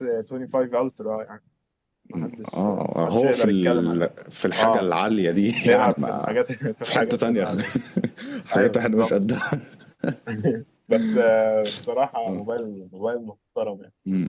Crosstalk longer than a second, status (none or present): present